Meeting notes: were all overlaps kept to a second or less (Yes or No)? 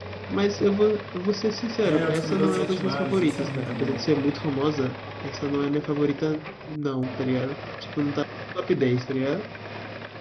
No